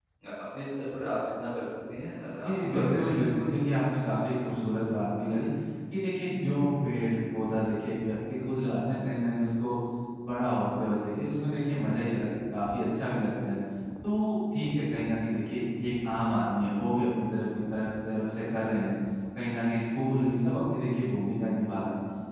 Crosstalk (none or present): present